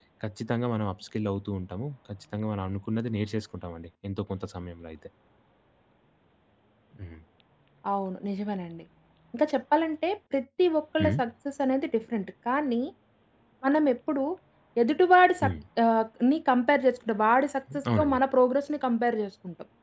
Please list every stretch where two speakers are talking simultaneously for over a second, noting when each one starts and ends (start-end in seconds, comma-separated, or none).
none